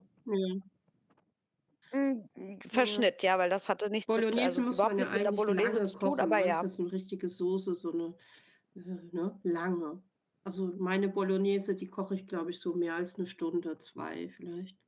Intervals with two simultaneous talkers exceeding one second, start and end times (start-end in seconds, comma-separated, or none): 4.3-6.7